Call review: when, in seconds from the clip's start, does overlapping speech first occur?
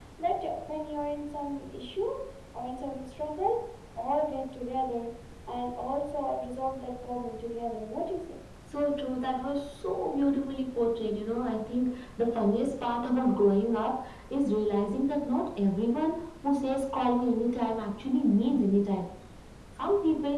none

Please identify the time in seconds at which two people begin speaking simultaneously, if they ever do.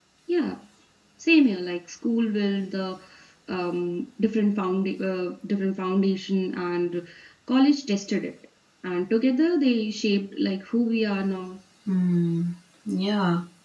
none

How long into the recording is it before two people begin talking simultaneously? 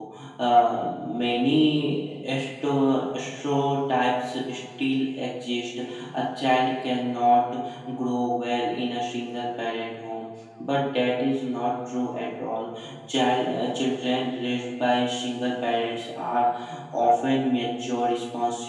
none

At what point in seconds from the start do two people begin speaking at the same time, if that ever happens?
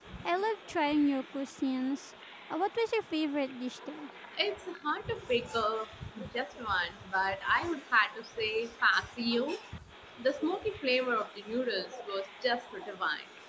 none

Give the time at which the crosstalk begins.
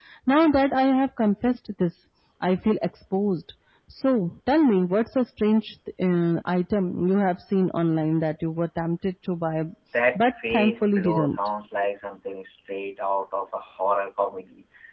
10.2 s

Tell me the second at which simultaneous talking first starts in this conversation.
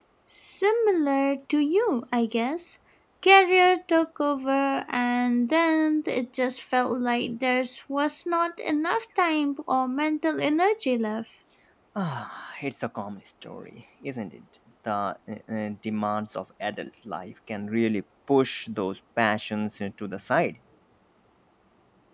none

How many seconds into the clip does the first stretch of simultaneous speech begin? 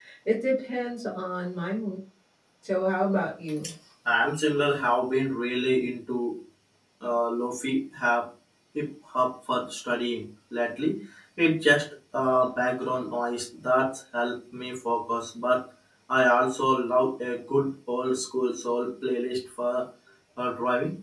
none

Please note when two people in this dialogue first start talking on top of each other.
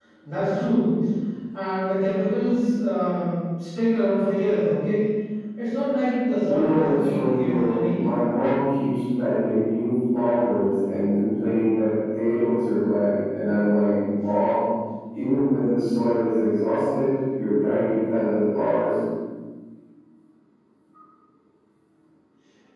6.4 s

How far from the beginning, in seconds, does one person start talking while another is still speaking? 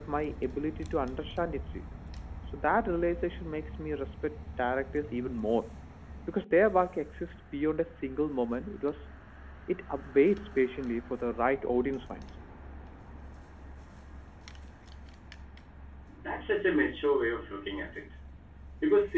none

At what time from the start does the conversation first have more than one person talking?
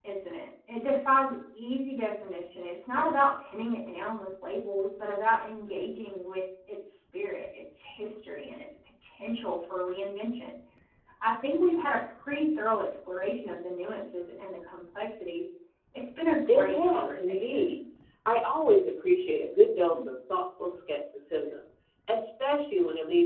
16.5 s

